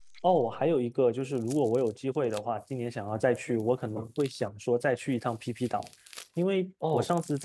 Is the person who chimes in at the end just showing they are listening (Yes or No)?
Yes